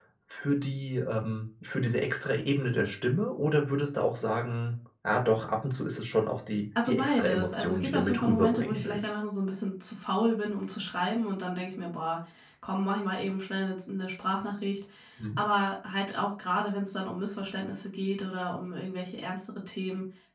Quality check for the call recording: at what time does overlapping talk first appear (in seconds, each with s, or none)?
6.8 s